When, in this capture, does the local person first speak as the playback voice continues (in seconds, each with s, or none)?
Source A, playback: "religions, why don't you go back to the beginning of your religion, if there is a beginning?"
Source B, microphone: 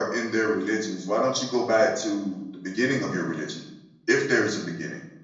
none